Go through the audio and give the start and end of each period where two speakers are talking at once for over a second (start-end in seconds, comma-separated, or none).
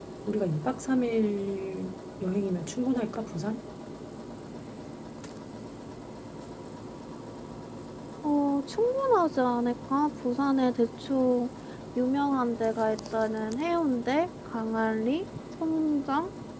none